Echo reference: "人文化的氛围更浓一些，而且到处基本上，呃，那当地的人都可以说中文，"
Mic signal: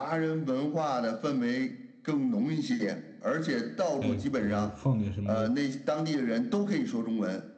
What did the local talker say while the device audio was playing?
呃呃，放点什么

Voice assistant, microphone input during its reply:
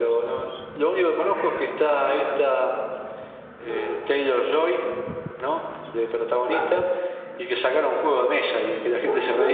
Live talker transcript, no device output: none

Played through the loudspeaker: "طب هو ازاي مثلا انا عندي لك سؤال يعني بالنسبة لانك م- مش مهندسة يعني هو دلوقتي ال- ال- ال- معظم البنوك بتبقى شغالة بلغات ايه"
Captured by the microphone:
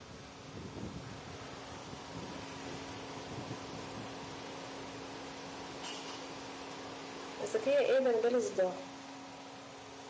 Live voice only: بس هي ايه ده انا جالي صداع

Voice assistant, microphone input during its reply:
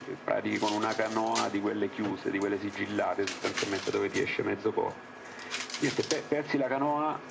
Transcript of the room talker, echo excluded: none

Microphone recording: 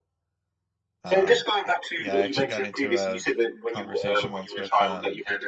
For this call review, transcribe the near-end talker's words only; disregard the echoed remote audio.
Um, yeah, I actually got into a conversation once with um

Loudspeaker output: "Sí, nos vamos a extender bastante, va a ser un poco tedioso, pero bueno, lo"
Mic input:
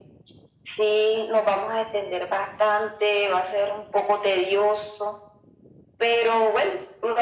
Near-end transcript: none

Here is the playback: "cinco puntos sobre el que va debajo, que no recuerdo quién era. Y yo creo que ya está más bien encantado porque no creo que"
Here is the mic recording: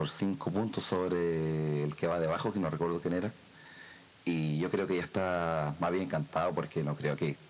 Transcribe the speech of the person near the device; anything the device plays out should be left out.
none

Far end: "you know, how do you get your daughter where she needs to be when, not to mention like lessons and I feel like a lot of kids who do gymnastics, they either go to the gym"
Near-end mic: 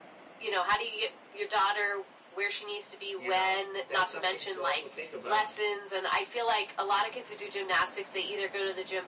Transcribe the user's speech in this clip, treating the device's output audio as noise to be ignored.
You know, that's something to also think about.

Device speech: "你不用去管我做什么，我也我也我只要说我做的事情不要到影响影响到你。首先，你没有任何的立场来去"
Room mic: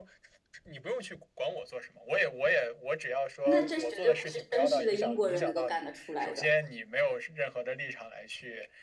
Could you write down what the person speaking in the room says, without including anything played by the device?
那这绝对不是绅士的英国人能够干得出来的，

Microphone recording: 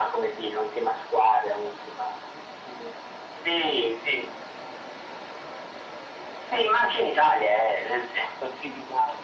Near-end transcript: none

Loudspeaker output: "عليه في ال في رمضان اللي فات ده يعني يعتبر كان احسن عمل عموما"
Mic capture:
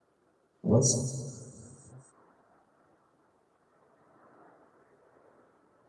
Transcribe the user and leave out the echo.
بس

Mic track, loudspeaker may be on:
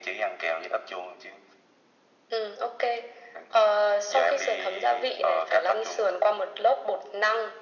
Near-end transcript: none

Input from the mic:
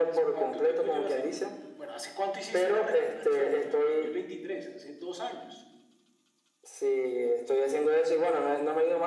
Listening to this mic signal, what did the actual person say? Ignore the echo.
none

